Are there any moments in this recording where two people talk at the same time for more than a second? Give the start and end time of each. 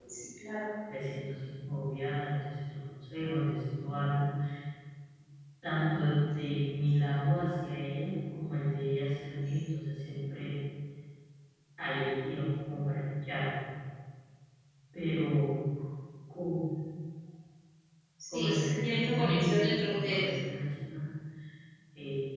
18.3-20.3

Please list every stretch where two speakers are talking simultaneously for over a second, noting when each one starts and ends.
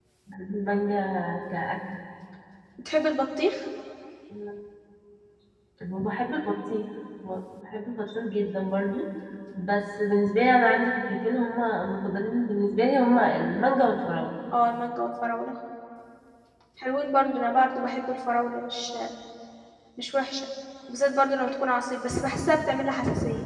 none

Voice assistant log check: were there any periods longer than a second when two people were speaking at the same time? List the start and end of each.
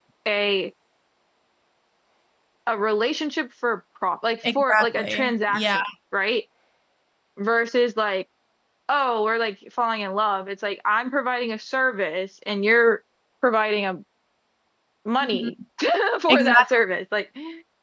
4.6-5.8

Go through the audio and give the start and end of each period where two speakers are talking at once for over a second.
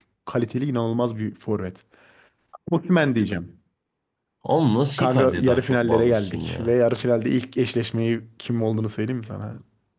5.0-6.7

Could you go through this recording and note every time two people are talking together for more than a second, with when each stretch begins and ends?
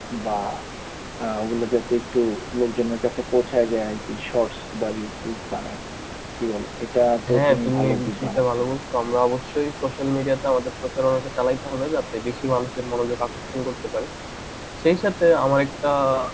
7.3-8.7

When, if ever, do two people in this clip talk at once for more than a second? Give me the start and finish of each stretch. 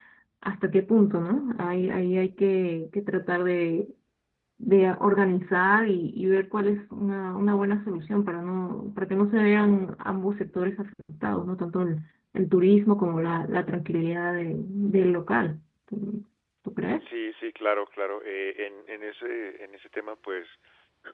none

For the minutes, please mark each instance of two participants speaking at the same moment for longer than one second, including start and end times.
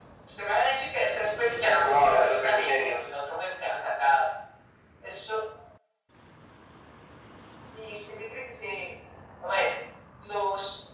1.6-3.0

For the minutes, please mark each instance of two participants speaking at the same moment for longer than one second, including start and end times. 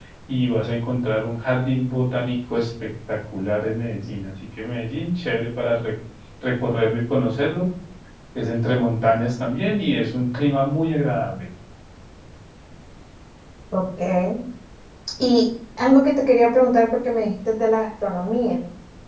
none

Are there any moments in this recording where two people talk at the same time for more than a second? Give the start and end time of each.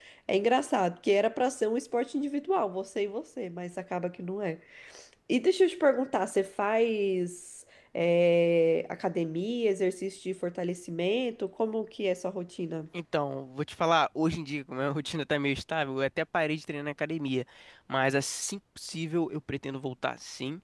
none

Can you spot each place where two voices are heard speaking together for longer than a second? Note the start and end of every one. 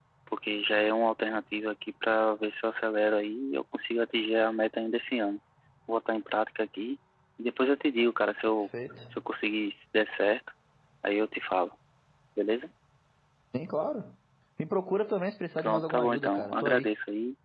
15.6-16.9

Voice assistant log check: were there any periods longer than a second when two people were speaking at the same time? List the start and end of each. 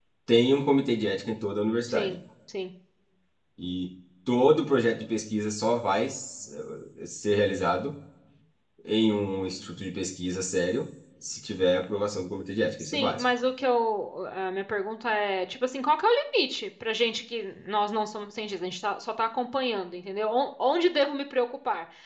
none

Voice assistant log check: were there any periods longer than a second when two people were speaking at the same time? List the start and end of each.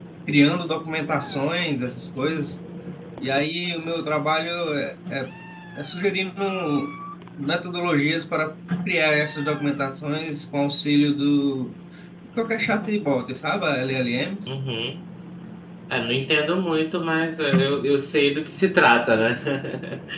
none

